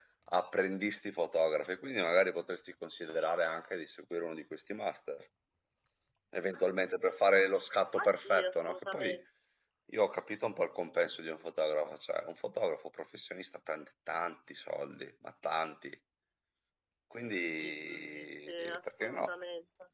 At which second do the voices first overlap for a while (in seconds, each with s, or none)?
7.9 s